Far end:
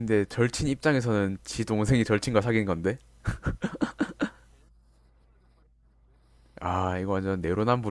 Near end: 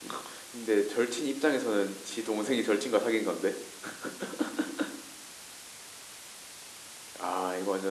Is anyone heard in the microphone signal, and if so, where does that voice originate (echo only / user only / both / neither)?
echo only